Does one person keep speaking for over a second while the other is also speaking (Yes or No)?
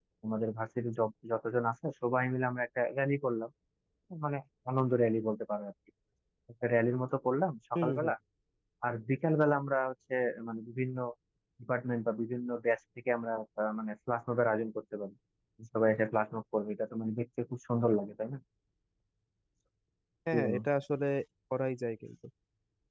No